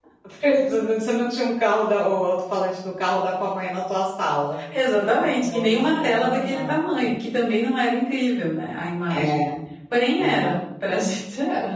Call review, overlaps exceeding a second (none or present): present